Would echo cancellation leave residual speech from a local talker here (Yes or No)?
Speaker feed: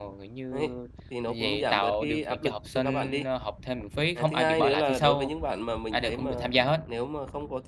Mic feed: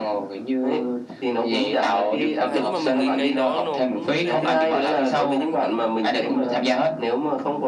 Yes